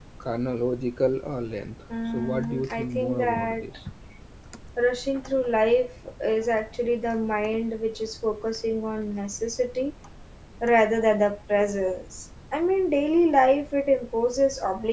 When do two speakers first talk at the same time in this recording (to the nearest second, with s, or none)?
2 s